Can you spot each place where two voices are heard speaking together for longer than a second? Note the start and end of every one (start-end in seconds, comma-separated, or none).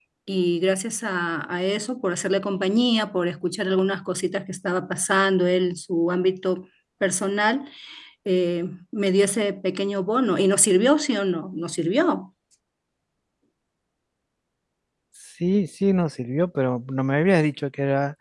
none